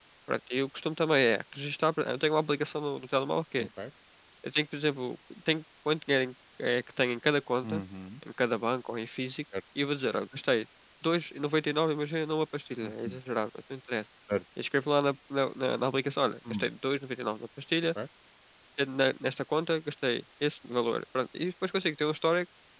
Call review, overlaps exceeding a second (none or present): none